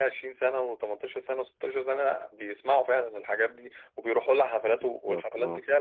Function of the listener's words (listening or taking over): taking over